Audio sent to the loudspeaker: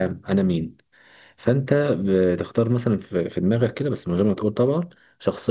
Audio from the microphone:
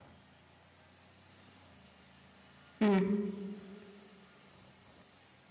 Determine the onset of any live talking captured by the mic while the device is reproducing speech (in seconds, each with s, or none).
2.8 s